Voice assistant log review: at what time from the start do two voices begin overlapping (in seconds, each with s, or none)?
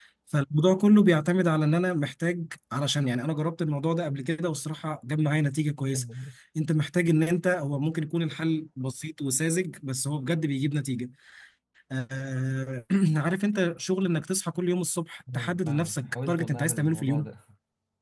15.3 s